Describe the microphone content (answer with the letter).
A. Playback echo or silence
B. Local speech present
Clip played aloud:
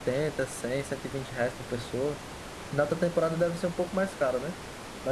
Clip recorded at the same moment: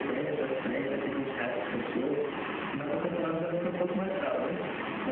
A